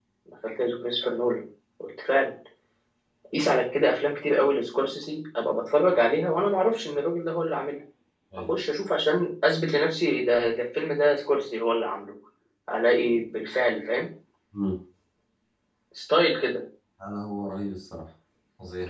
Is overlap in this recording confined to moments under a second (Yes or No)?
Yes